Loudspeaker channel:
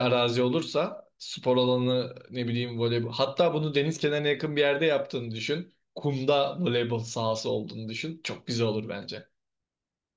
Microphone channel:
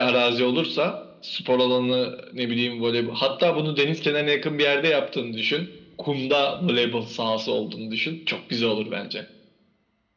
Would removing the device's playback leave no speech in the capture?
Yes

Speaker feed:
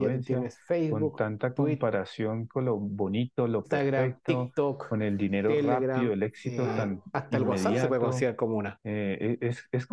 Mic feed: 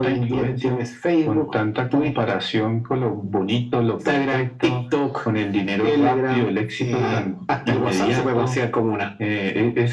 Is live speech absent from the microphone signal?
Yes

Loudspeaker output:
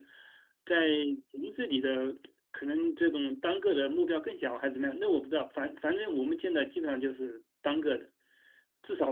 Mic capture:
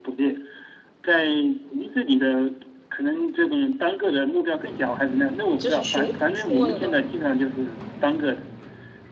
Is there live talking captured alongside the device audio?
Yes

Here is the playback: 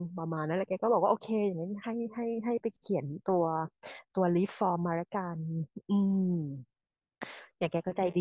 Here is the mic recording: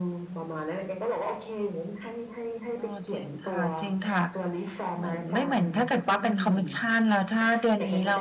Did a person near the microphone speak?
Yes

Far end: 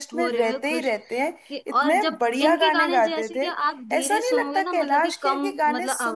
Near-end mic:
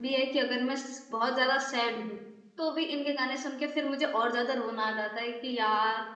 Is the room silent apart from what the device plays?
No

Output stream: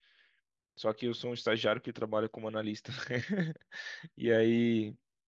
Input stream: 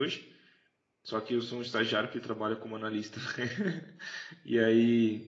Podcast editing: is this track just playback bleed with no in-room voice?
Yes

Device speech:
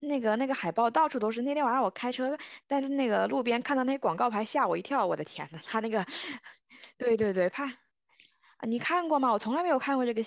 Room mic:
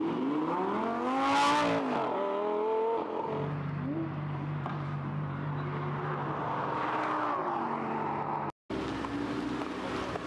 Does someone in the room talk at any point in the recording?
No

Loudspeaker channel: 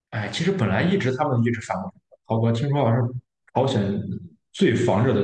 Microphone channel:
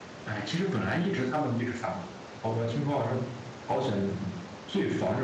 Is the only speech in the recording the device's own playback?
Yes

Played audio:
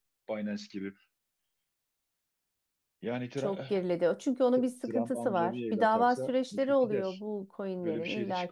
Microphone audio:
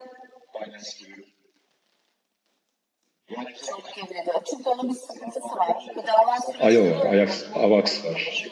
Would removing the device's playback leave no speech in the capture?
No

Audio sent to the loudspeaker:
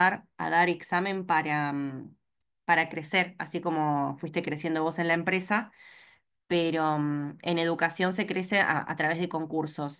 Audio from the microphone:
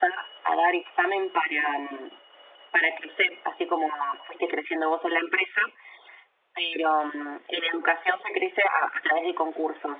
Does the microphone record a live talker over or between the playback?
No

